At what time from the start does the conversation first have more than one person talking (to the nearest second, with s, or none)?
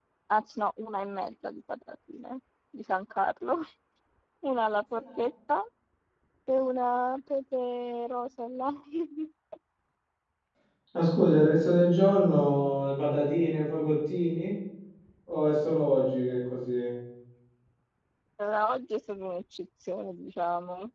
none